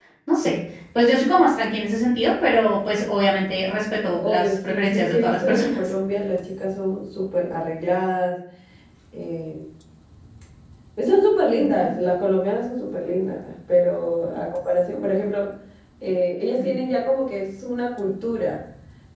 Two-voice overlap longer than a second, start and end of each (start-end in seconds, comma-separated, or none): 4.1-5.8